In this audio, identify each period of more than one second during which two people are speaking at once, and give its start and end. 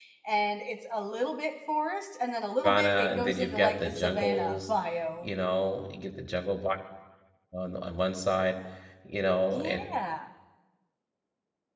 2.6-4.7

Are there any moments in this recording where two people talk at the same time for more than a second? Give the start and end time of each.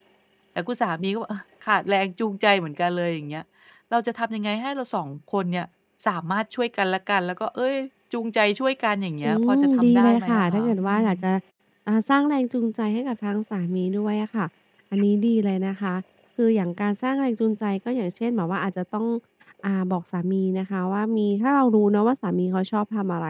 9.2-11.1

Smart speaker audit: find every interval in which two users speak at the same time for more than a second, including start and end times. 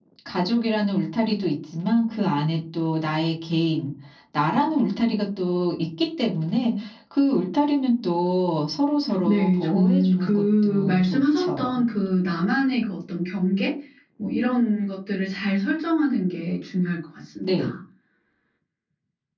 9.2-11.9

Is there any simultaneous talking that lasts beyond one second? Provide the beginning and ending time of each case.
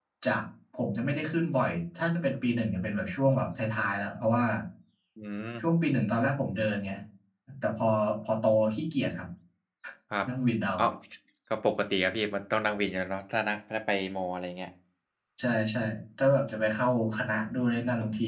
none

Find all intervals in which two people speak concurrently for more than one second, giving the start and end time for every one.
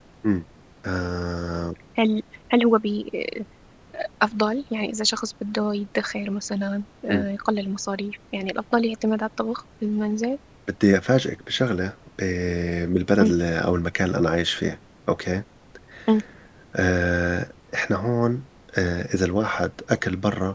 none

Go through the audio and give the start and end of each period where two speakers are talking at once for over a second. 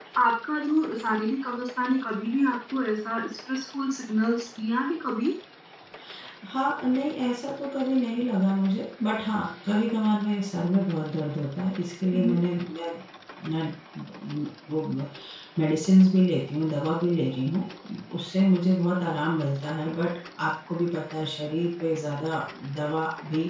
none

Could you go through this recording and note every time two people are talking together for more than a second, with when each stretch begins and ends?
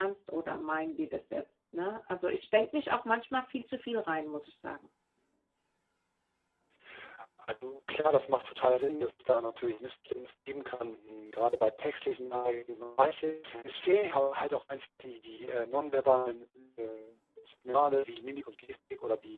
none

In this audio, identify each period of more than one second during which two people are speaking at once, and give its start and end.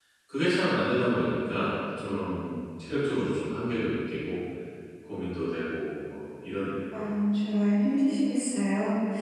none

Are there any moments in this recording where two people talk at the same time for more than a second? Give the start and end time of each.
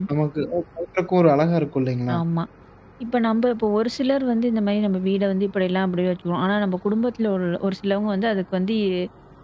none

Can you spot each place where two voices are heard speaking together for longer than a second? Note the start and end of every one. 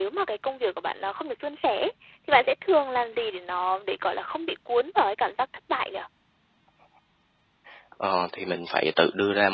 none

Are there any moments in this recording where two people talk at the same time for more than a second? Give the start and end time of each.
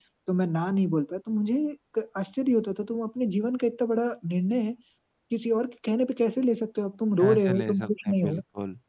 7.2-8.4

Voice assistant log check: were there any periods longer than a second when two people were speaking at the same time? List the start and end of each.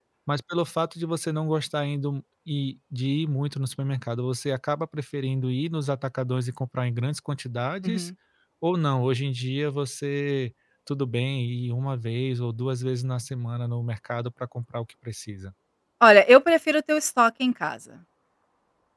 none

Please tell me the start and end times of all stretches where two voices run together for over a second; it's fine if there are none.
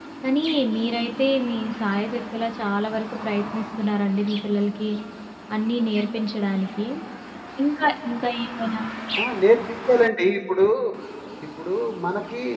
none

